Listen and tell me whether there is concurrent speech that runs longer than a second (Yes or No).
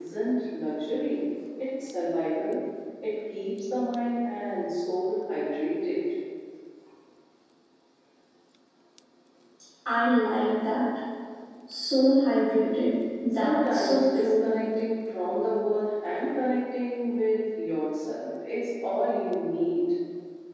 Yes